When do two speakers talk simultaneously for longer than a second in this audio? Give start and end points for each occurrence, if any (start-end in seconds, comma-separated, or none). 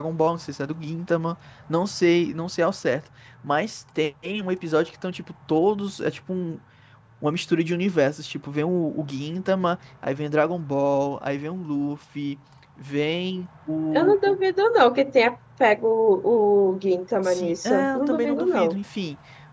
17.2-18.7